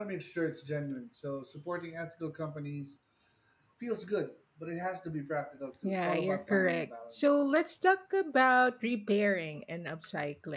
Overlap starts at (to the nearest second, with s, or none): 6 s